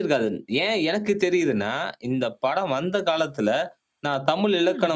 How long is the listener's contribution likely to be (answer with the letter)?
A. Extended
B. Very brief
B